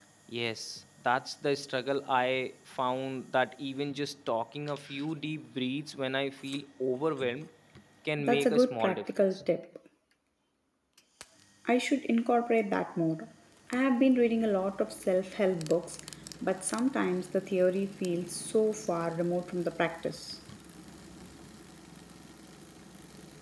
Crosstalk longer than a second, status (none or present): present